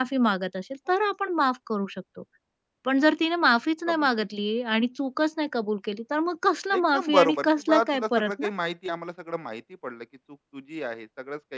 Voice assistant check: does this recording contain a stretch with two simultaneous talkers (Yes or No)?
Yes